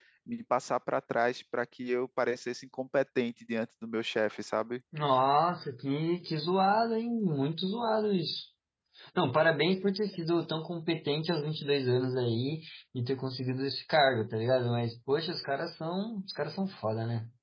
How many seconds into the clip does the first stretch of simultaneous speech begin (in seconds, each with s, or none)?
none